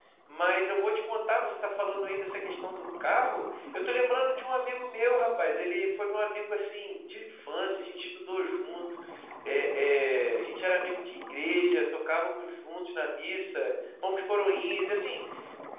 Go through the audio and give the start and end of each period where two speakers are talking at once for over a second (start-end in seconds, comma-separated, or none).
none